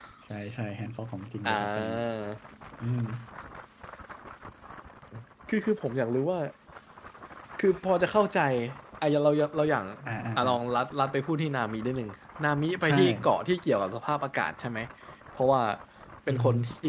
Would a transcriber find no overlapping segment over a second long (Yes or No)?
Yes